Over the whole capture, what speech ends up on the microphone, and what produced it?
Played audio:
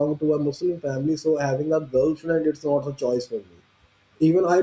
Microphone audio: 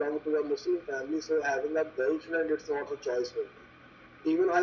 echo only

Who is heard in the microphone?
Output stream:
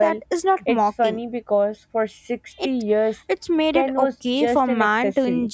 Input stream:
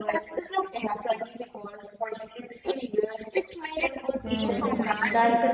both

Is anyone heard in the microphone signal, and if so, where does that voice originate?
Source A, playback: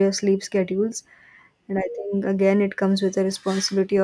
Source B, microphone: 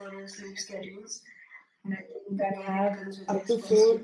both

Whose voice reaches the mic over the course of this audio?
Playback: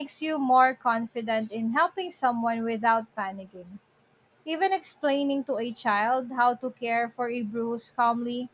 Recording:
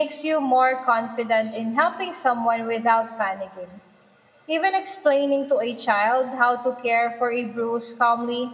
echo only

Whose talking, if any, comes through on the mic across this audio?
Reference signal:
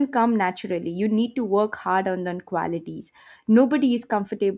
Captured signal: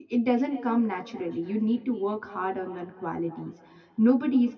echo only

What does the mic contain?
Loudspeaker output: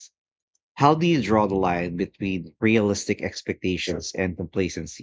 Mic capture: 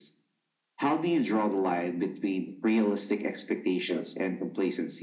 echo only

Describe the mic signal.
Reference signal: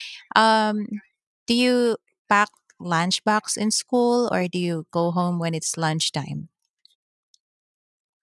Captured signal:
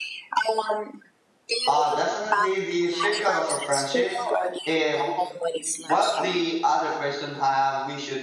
both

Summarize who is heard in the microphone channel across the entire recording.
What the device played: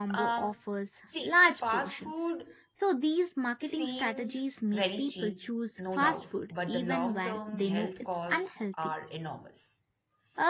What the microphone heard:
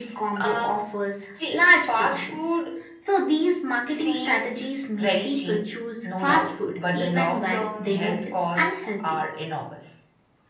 echo only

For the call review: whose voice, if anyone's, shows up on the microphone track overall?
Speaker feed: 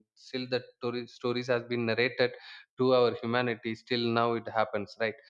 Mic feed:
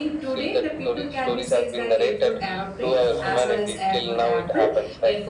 both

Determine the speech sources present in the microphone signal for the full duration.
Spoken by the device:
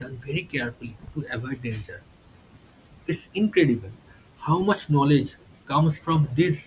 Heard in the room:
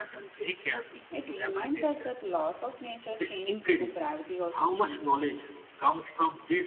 both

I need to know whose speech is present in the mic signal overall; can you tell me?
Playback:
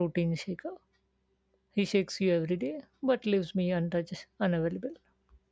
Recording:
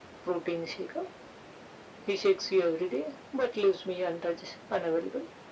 echo only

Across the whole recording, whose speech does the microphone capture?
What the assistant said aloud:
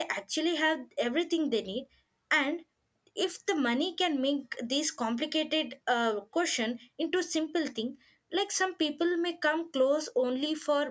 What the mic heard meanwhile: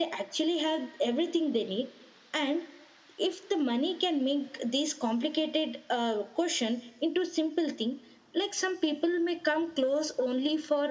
echo only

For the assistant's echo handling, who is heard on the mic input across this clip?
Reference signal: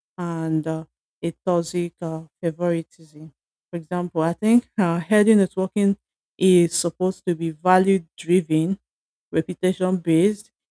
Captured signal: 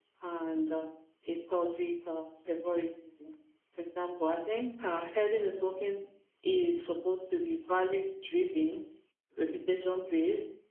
echo only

